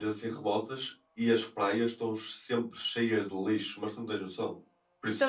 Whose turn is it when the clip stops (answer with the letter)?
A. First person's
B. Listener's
B